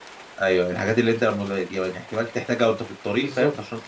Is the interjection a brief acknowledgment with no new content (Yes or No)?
No